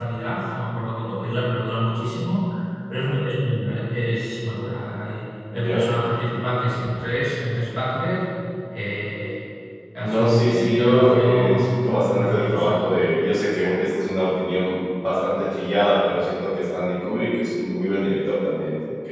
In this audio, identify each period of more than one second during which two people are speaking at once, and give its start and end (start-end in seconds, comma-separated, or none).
10.0-12.8